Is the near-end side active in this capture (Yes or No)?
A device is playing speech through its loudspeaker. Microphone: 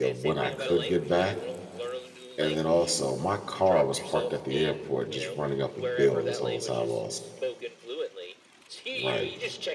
Yes